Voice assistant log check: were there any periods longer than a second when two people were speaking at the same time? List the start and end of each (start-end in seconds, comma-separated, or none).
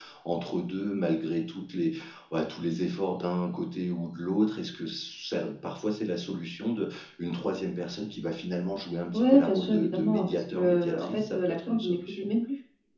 9.1-12.3